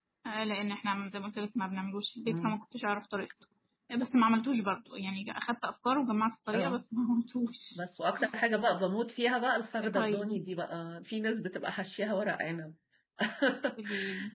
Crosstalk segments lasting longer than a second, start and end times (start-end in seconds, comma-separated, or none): none